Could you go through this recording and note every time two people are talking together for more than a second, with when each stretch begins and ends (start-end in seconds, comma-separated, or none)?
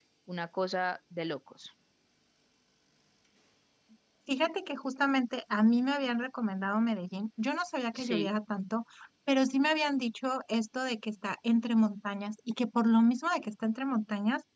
none